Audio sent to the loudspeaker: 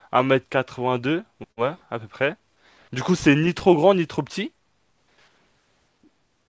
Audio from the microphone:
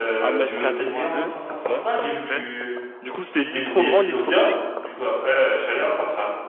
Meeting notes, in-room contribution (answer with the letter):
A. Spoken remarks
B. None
A